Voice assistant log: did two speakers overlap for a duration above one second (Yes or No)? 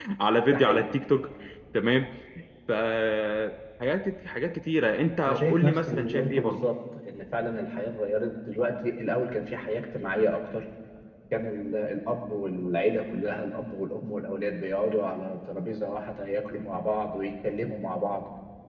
Yes